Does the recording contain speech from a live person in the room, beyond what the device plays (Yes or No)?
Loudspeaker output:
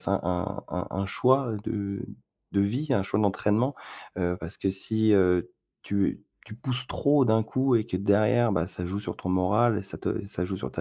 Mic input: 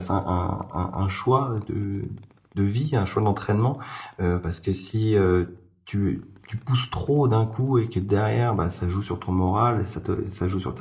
No